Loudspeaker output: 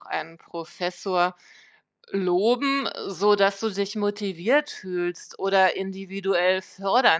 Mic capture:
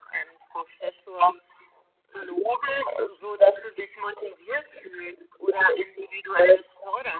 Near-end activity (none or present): none